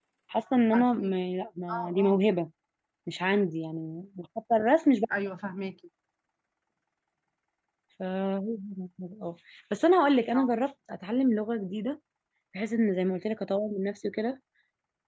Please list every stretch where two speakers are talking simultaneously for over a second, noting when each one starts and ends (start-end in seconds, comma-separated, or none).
none